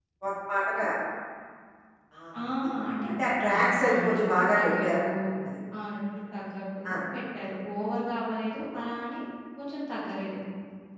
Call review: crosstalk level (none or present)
present